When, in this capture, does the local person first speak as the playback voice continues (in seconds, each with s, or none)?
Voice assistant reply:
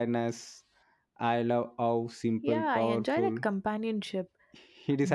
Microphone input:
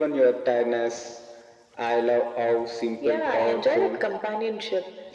none